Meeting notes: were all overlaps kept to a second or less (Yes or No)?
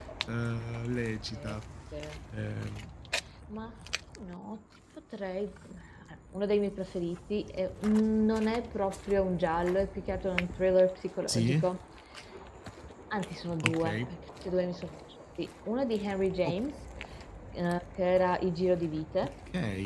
Yes